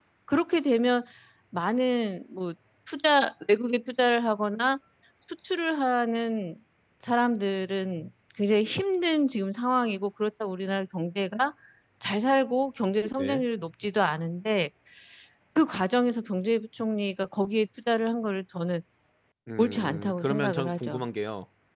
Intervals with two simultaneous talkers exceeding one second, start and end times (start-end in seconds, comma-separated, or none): 19.6-21.1